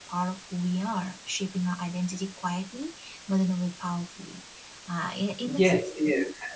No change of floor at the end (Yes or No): No